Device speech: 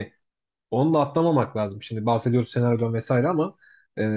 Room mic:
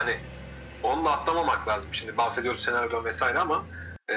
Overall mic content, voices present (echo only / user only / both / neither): echo only